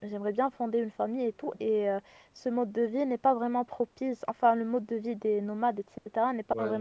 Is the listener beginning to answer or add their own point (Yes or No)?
No